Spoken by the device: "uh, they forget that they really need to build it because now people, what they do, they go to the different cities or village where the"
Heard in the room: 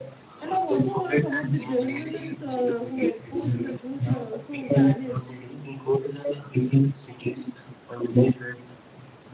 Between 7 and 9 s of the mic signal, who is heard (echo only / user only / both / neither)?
echo only